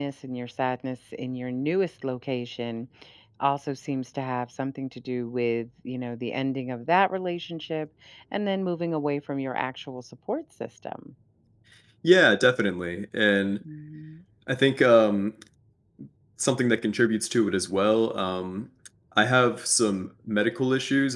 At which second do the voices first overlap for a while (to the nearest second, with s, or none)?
none